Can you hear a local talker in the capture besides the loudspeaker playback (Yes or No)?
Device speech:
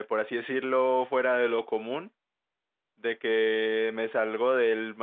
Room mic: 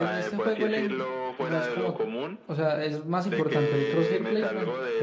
Yes